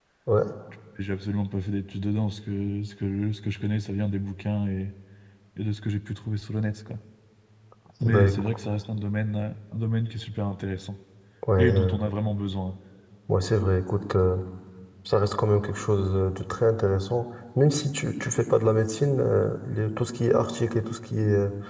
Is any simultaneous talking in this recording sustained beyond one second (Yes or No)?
No